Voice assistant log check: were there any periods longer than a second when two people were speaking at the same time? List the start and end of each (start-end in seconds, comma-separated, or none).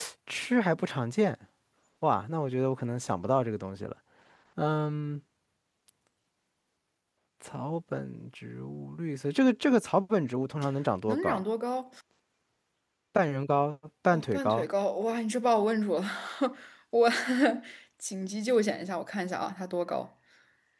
none